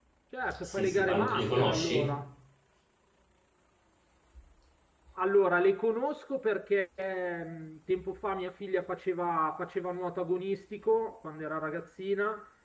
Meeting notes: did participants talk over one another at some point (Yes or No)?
Yes